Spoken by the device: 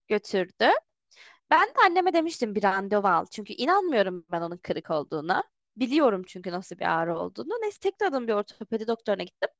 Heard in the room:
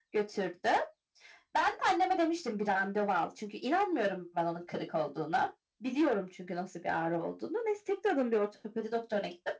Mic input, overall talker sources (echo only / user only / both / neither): echo only